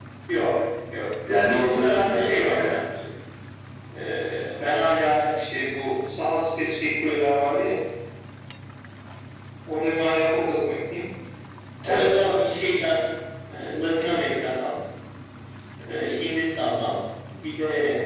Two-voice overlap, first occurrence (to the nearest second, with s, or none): 1 s